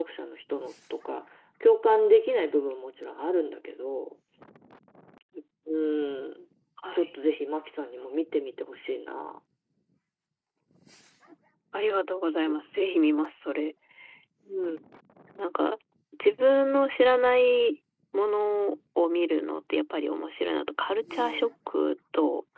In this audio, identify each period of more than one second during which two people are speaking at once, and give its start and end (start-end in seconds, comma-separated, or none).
none